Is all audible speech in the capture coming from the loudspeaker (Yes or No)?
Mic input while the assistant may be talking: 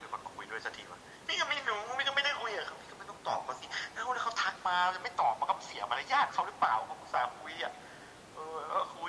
Yes